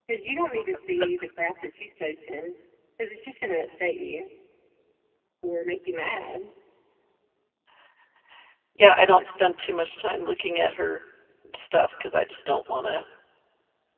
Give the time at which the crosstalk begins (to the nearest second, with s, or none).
none